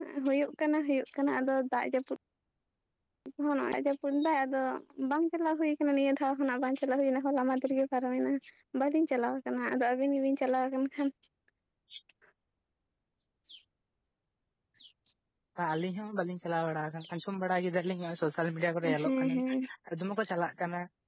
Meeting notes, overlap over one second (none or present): none